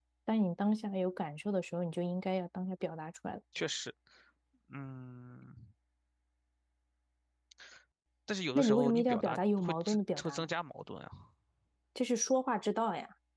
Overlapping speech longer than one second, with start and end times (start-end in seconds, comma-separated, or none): 8.6-10.5